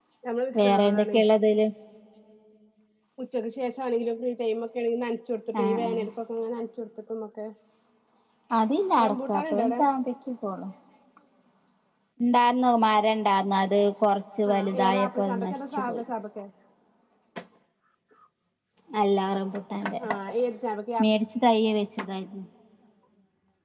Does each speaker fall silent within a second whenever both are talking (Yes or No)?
No